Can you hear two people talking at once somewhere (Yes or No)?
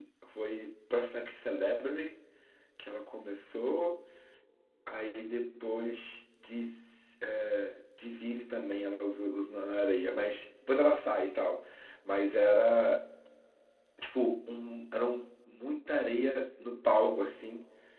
No